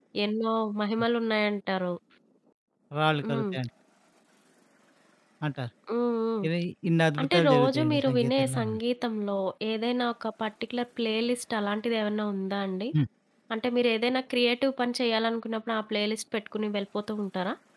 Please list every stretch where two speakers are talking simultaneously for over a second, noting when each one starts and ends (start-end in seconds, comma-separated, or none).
7.2-8.7